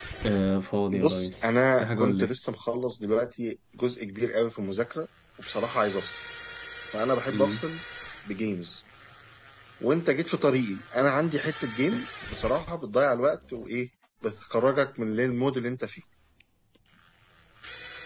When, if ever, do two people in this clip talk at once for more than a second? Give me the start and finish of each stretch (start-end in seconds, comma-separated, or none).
0.9-2.3